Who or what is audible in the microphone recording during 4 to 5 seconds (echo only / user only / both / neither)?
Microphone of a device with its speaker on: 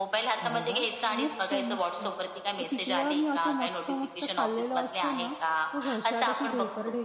both